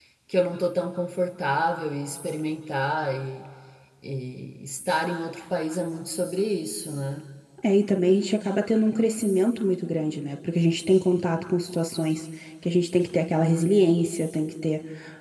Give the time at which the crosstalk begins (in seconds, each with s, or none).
none